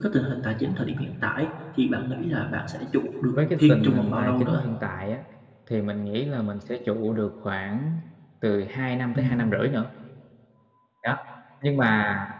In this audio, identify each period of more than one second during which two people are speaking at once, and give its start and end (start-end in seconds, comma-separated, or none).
3.3-4.7